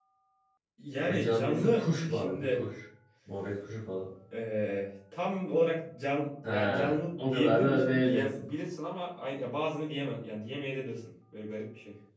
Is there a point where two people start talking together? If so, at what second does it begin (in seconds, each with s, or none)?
1.1 s